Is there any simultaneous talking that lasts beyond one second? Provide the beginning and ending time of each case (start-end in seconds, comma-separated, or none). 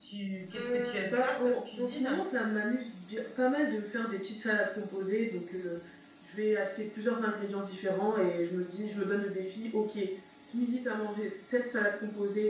0.6-2.2